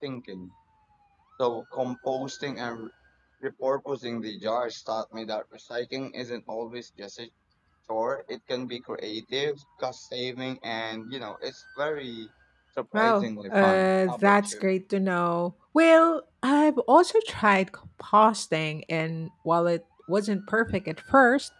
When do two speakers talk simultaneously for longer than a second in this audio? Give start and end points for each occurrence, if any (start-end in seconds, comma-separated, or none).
12.9-14.6